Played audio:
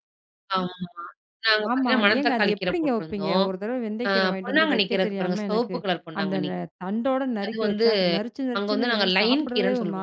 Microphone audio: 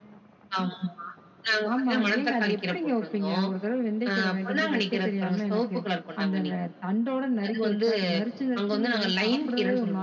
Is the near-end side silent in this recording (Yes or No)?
Yes